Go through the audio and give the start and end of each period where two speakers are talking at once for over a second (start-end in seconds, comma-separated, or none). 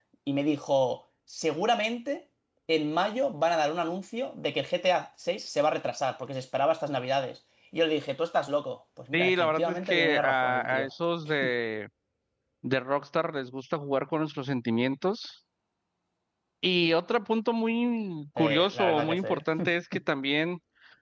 9.1-10.9, 18.4-19.7